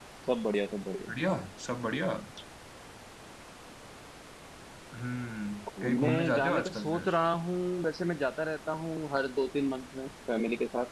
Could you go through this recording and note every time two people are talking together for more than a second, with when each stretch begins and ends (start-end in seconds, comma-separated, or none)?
5.8-7.2